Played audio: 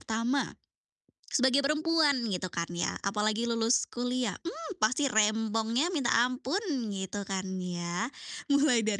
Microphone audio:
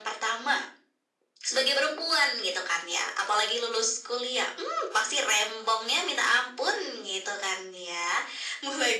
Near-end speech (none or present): none